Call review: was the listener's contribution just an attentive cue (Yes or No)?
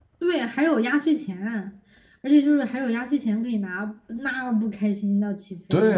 No